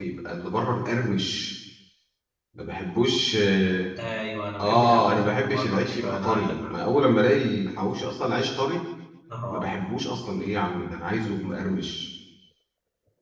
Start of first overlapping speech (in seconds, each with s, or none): 4.6 s